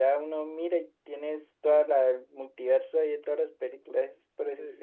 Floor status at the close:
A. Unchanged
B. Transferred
B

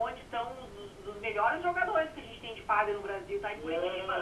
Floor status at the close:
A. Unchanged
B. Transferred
B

